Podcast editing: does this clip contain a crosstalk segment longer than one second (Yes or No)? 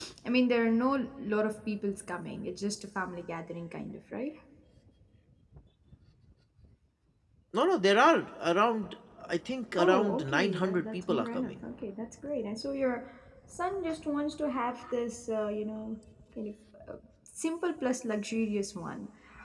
Yes